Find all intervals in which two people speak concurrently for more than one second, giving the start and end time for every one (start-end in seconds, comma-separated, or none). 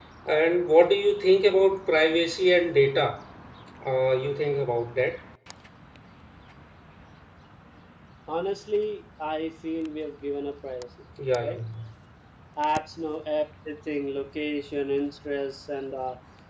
none